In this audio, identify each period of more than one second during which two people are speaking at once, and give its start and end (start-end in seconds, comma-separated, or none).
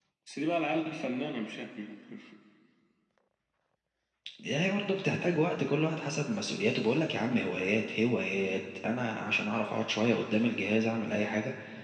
none